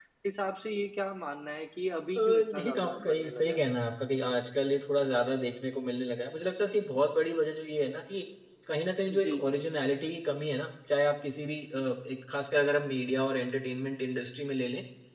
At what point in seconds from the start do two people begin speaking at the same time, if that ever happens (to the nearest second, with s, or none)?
2 s